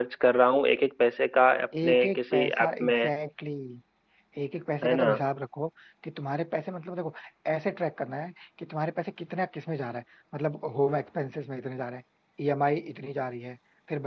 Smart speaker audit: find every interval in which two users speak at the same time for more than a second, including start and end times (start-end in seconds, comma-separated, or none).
1.8-3.1